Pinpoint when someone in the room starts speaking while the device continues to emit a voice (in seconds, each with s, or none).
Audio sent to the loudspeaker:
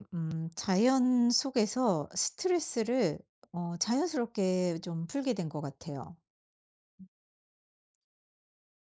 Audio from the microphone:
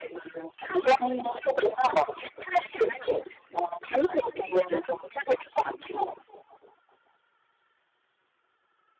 none